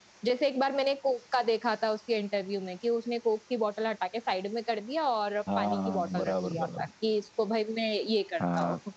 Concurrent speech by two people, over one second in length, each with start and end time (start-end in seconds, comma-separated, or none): 5.6-6.9